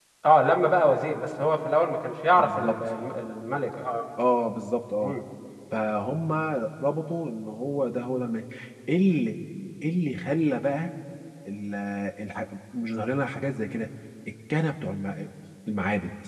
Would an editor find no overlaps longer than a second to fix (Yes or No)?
Yes